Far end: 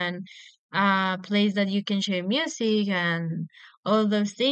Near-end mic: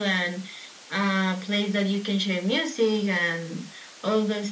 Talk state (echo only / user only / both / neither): echo only